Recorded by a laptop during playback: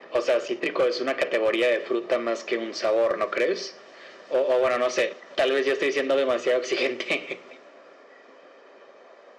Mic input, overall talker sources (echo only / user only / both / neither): echo only